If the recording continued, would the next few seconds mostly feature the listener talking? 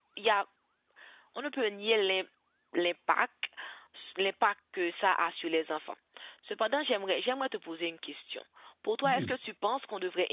No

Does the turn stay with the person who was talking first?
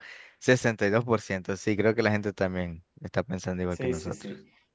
No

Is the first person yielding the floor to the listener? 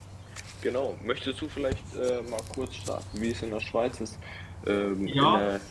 No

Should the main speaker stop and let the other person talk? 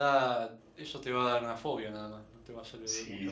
Yes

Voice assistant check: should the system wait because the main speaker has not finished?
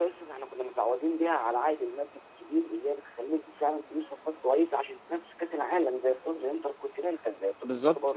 Yes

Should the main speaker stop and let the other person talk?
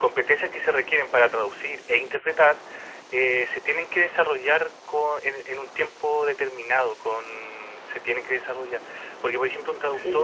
Yes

